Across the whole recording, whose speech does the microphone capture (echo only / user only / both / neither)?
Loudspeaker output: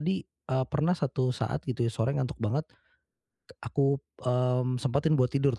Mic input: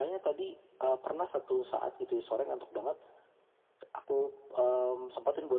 echo only